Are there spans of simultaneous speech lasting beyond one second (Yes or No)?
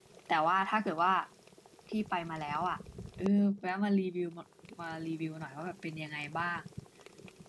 No